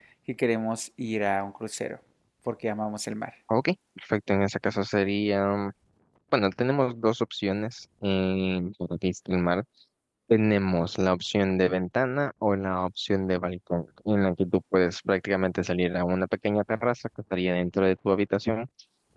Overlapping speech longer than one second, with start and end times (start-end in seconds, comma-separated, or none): none